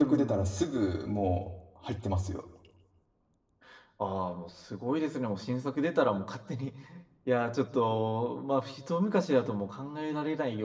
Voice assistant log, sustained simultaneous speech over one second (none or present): none